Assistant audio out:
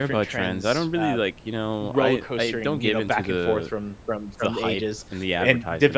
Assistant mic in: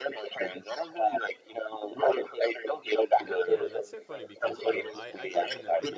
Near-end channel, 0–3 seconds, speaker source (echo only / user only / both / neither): echo only